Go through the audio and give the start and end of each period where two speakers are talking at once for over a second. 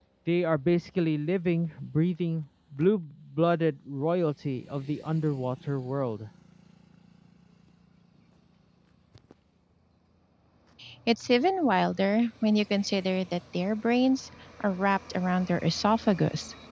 none

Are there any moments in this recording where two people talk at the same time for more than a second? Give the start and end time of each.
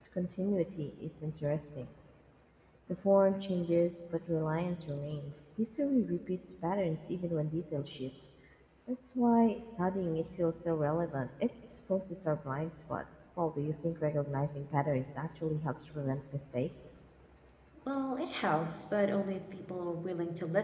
none

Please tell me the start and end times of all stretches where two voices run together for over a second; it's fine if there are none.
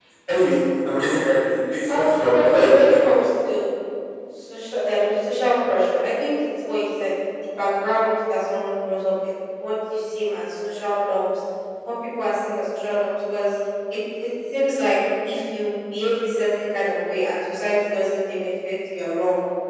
1.9-3.1

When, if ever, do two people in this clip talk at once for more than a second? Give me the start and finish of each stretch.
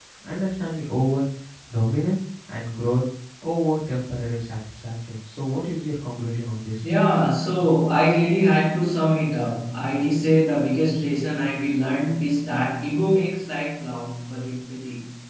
none

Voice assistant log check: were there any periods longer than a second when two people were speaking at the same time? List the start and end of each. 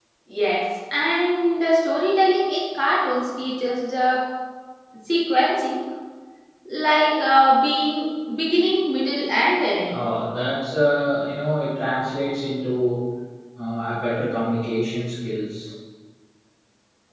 none

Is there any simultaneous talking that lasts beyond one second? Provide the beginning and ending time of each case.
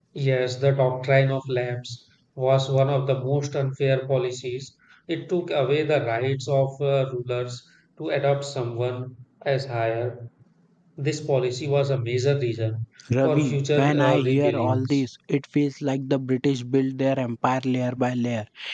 13.2-15.0

